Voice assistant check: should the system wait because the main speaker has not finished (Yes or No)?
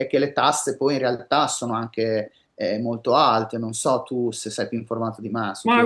No